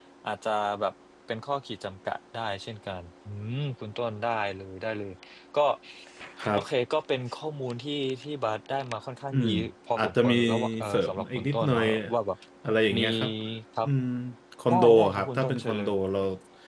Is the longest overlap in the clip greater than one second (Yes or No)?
Yes